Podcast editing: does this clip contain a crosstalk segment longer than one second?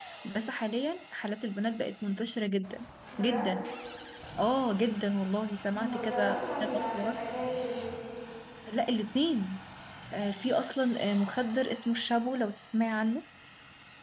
Yes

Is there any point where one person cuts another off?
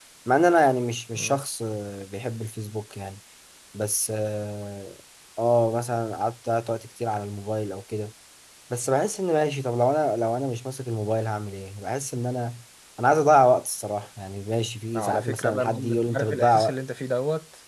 Yes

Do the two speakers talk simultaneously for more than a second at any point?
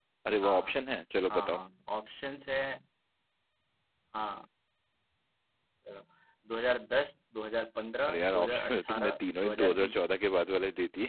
Yes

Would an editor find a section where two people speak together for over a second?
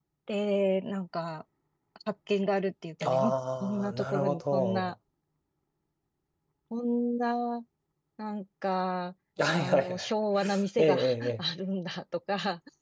Yes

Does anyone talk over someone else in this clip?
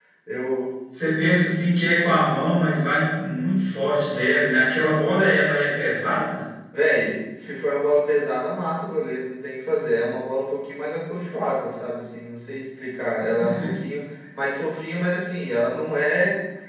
No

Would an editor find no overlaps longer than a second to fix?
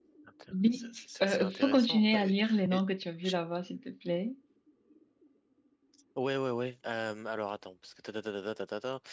No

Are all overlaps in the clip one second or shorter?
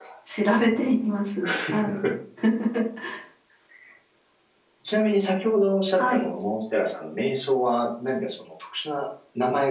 Yes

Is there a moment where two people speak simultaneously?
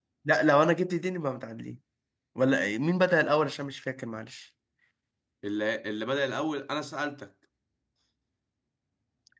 No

